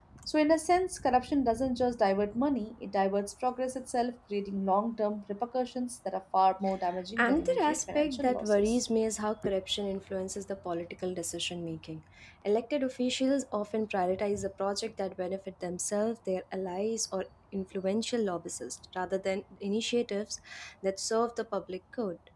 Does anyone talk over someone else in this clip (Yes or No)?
Yes